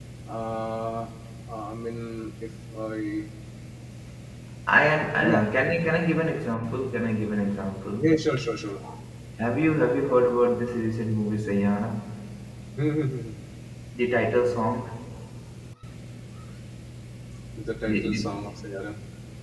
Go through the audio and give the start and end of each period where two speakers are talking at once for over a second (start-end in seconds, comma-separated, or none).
none